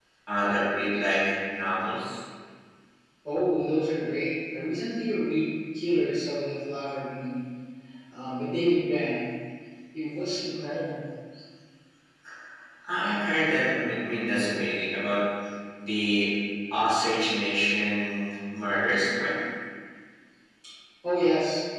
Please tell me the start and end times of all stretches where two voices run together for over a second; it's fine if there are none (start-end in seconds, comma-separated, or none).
none